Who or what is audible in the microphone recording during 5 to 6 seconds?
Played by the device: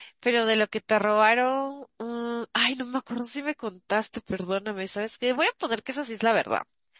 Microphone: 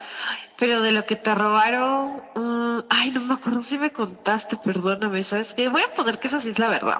echo only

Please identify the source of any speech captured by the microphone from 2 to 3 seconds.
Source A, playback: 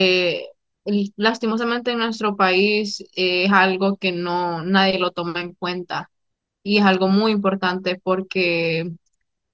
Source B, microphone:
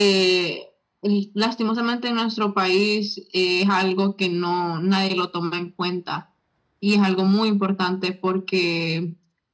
echo only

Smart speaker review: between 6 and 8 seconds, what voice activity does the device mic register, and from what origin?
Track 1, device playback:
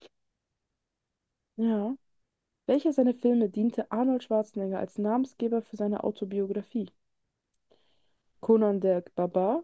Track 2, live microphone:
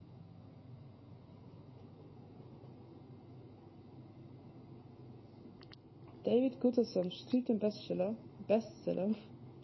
user only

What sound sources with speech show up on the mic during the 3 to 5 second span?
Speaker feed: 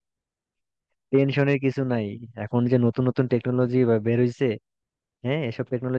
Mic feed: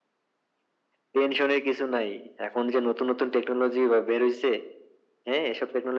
echo only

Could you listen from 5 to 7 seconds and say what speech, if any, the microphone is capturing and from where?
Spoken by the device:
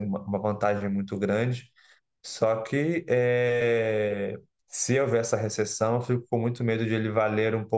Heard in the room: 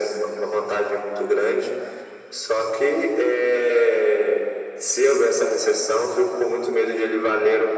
echo only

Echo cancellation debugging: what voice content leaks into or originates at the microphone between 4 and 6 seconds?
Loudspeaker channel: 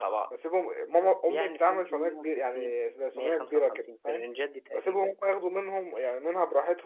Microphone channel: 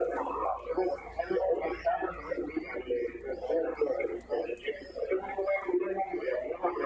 echo only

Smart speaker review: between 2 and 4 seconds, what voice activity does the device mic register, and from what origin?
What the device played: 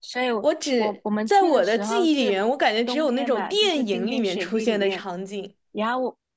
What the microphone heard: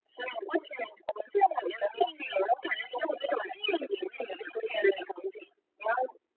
echo only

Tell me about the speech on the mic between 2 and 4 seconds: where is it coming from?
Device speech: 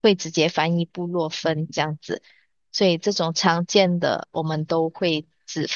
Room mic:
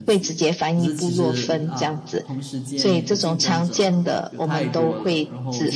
both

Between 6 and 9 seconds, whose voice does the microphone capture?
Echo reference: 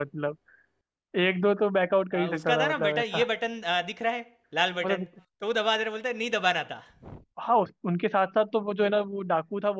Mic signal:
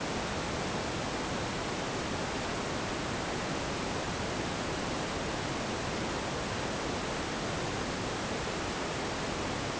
neither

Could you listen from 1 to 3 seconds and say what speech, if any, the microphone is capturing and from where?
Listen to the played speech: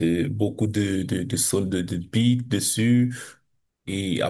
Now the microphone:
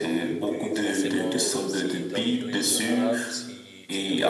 both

